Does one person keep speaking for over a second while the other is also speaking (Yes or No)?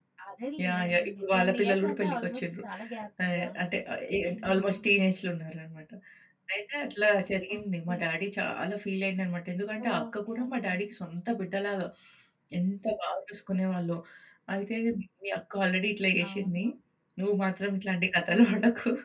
Yes